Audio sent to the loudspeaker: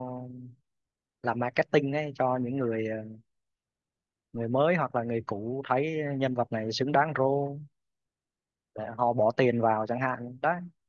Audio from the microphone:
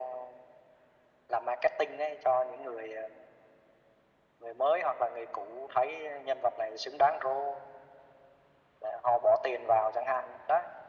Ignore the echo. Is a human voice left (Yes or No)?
No